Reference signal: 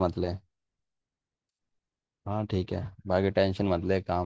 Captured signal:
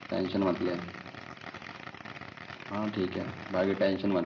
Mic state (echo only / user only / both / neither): echo only